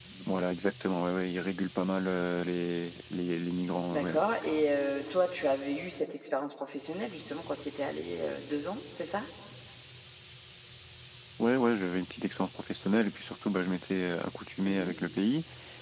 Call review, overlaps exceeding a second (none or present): none